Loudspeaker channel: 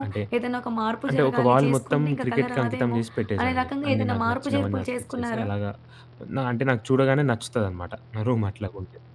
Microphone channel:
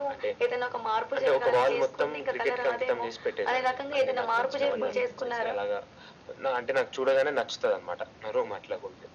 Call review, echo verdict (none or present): present